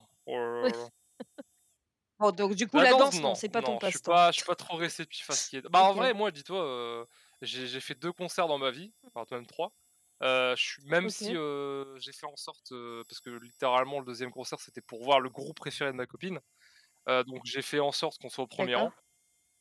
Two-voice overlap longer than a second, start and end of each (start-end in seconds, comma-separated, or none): 2.7-4.2